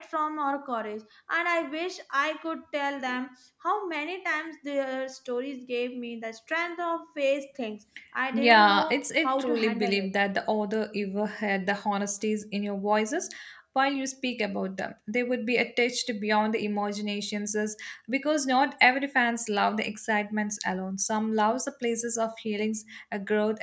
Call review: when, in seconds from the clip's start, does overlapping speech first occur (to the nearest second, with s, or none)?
8 s